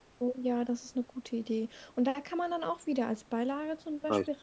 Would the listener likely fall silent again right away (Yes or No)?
Yes